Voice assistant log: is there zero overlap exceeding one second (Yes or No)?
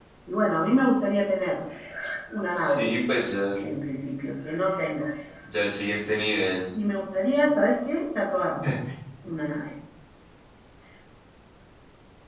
Yes